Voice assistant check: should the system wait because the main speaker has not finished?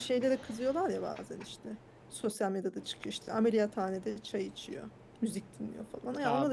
Yes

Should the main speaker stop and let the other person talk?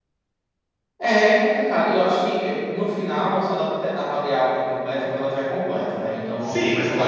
Yes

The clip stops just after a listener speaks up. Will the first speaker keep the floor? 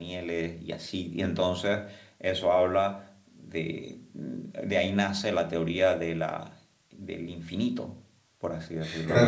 No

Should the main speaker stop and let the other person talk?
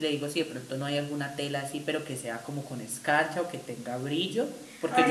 Yes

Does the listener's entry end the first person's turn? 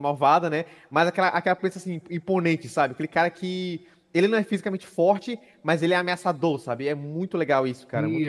Yes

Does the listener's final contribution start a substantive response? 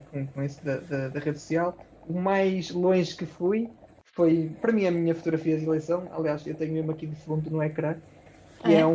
No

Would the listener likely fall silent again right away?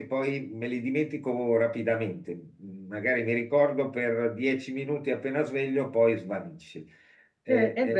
No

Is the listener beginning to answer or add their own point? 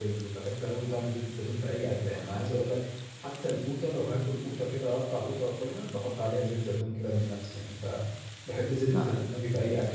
No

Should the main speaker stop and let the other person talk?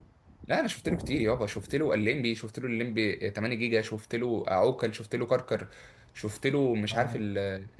No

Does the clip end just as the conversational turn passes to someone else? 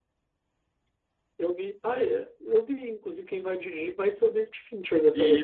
Yes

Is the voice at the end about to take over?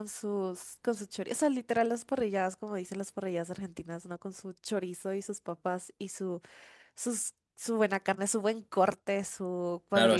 Yes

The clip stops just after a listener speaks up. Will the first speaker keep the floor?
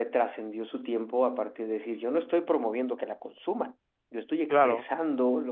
Yes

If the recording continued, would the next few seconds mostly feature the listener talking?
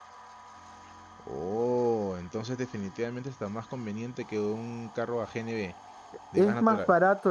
Yes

